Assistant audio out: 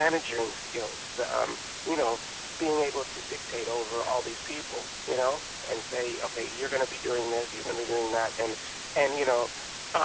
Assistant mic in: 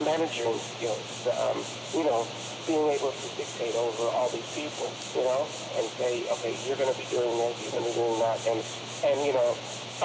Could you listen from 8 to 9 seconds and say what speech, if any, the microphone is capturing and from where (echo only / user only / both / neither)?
echo only